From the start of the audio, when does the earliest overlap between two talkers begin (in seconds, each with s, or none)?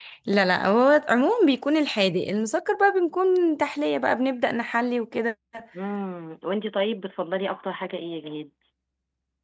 none